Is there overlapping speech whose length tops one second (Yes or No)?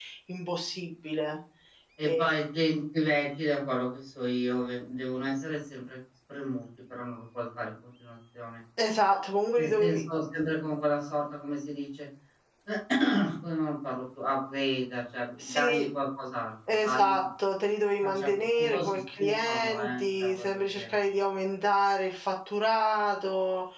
Yes